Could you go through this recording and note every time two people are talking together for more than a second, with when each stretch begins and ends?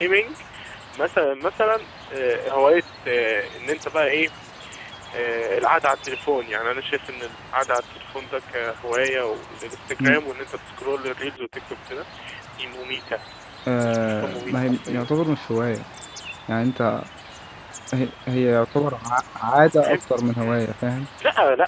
13.8-15.1

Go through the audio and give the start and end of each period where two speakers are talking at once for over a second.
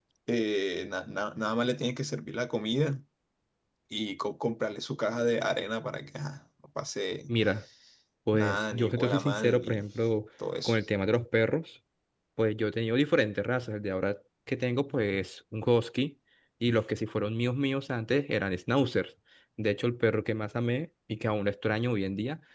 8.3-9.9

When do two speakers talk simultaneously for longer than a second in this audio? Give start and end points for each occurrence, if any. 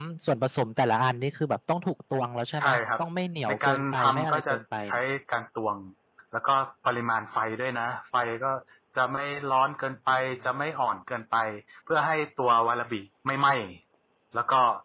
3.5-5.0

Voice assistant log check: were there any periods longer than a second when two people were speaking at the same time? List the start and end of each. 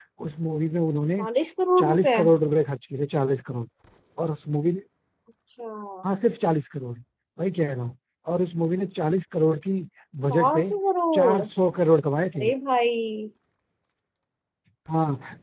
none

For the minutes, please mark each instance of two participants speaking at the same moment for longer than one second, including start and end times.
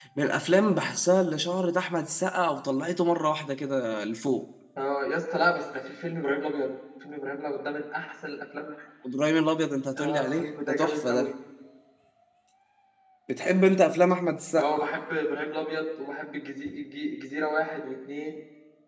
10.0-11.3

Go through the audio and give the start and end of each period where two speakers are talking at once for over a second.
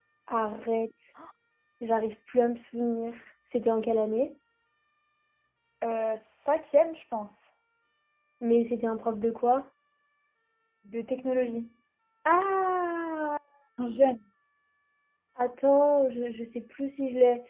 none

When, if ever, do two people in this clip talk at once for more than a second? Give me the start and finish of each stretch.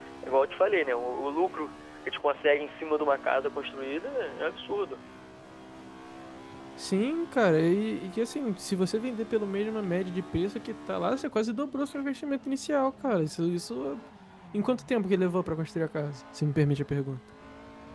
none

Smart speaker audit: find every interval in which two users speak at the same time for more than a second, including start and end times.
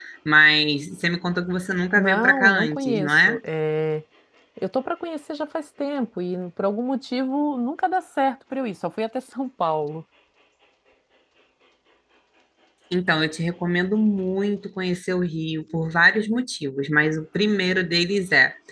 1.9-3.4

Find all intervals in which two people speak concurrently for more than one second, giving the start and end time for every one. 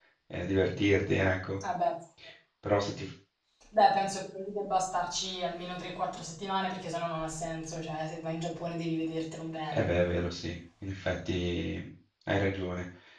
none

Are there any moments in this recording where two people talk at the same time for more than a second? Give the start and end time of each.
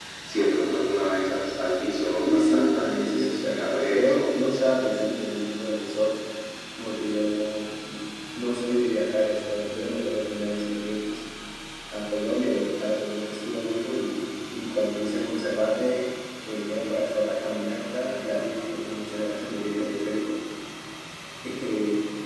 2.2-4.8

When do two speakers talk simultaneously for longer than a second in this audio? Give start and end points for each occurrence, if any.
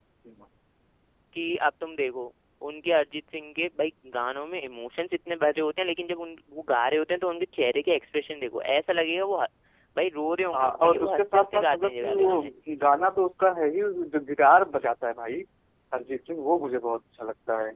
10.5-12.4

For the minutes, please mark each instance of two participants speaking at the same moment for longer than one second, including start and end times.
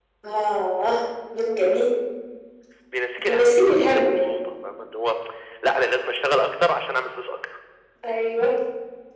3.2-4.4

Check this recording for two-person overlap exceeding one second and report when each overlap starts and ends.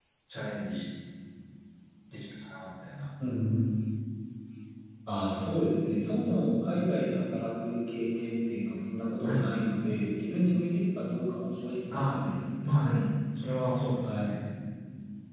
none

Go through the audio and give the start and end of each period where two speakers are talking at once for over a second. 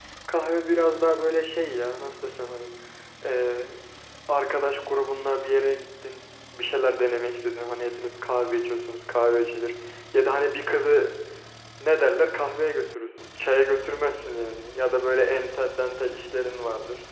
none

